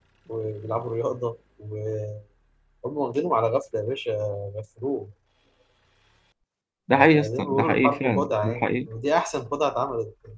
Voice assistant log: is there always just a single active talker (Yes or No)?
No